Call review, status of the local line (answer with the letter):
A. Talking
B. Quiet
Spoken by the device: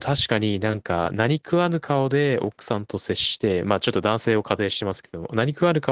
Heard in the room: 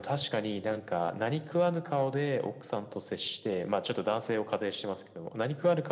B